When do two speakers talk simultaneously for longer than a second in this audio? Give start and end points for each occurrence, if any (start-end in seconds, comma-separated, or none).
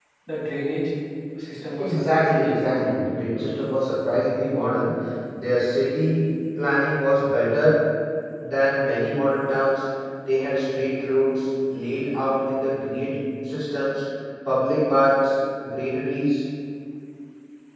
1.8-3.0